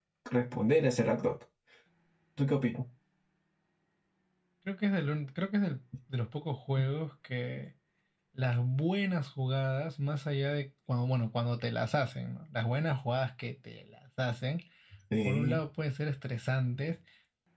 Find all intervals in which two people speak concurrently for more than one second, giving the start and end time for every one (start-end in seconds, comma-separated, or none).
none